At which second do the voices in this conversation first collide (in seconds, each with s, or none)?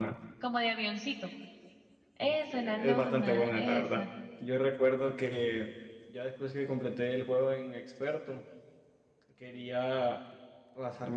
2.2 s